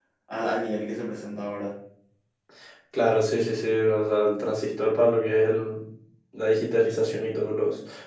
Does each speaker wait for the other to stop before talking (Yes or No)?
Yes